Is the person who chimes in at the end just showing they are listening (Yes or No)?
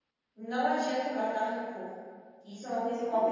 No